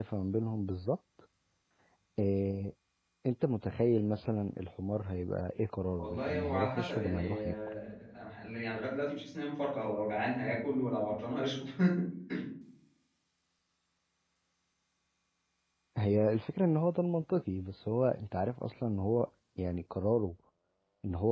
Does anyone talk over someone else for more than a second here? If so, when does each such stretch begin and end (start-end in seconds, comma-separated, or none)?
6.0-7.6